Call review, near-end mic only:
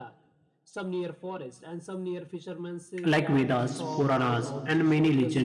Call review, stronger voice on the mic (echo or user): user